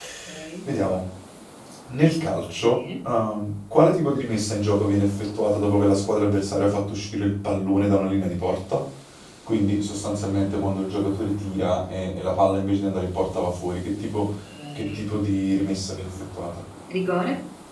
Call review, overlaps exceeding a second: none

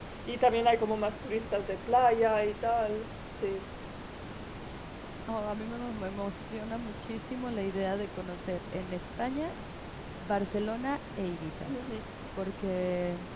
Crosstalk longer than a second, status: none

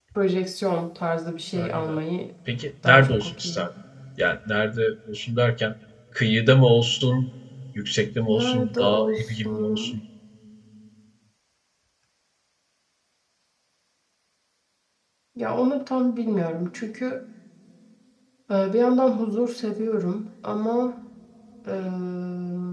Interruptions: present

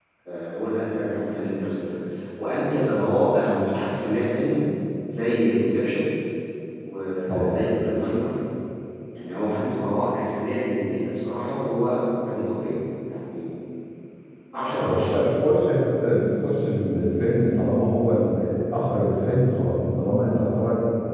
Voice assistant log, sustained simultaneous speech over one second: none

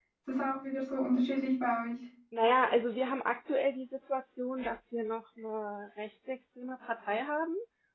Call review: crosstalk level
none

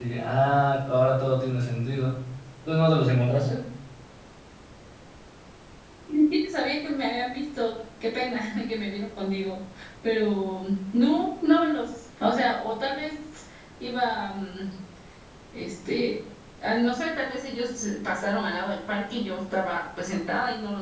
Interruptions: none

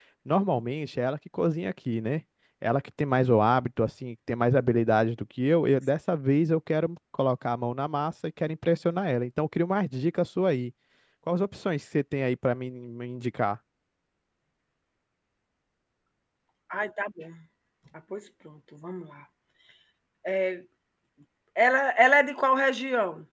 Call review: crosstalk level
none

